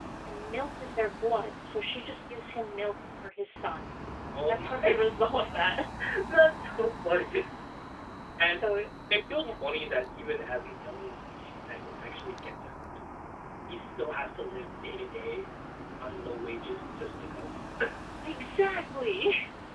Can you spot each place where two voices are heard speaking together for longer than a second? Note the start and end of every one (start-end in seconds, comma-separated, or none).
4.3-5.6